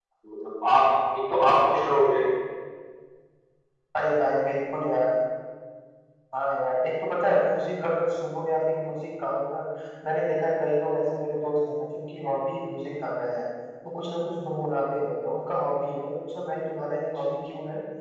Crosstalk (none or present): none